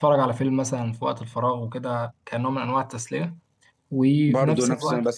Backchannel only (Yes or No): No